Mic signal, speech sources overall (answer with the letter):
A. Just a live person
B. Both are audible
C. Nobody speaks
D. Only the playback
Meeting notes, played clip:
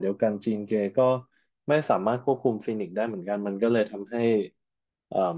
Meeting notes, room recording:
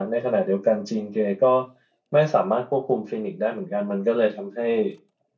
D